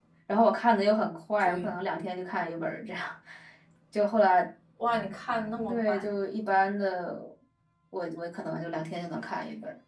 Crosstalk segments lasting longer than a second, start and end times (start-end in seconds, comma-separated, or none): none